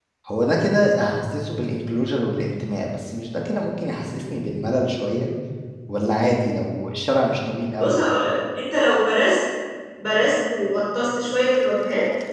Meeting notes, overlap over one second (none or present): none